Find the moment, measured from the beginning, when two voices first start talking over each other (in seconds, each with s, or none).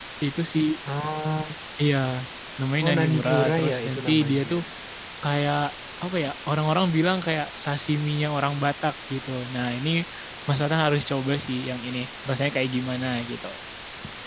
2.8 s